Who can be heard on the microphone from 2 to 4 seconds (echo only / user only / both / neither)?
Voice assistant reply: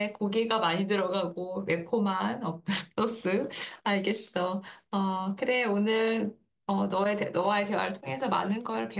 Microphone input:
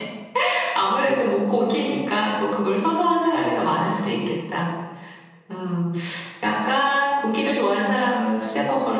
user only